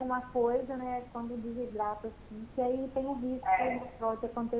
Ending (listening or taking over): listening